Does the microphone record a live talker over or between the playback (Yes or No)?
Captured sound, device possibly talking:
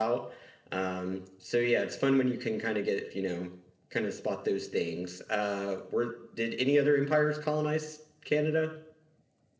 Yes